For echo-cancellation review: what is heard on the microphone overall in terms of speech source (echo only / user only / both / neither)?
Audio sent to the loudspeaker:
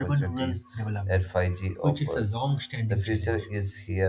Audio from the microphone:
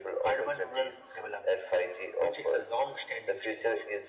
echo only